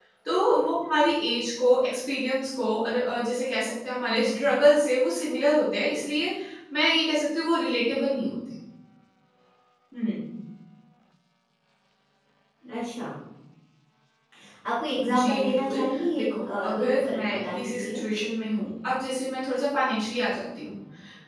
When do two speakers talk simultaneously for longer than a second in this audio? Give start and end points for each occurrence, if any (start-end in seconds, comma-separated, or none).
15.1-18.0